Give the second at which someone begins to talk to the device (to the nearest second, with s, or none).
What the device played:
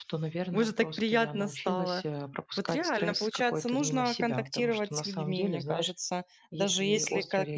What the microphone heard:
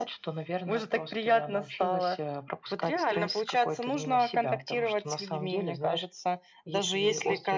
none